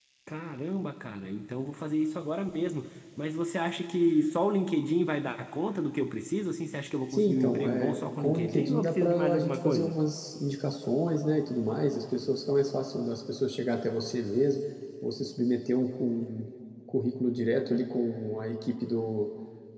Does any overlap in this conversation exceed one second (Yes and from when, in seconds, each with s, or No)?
Yes, from 7.1 s